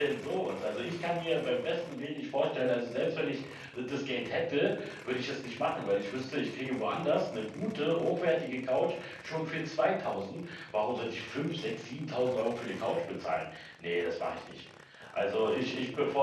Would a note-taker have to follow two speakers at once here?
No

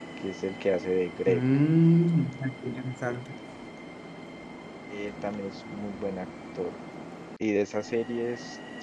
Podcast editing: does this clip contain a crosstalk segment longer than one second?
No

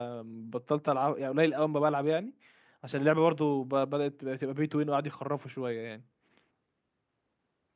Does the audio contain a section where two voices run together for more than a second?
No

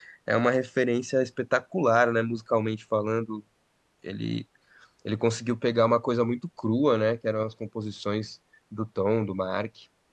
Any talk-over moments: No

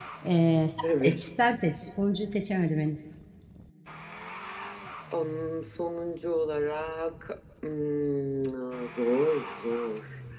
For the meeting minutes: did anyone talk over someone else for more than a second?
No

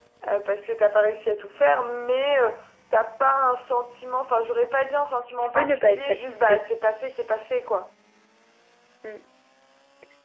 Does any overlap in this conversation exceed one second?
Yes, from 5.4 s

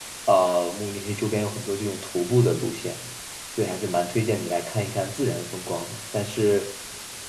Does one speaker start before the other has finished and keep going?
No

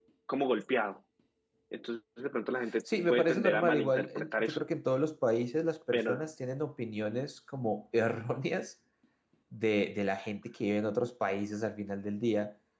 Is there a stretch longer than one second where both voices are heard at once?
Yes, from 3.1 s

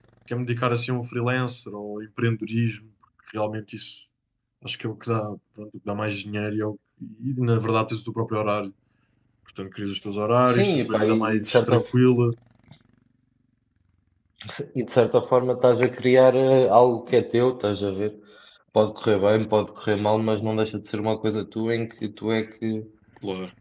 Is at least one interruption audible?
Yes, from 10.5 s

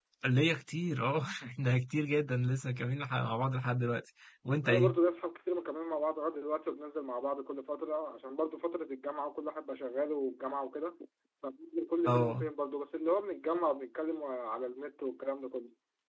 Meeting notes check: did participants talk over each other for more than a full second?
No

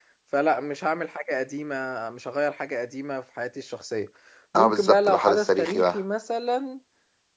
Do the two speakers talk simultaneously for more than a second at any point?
Yes, from 4.5 s

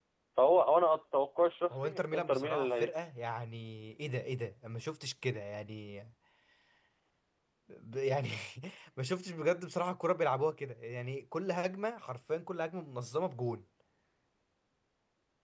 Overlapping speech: Yes, from 1.7 s

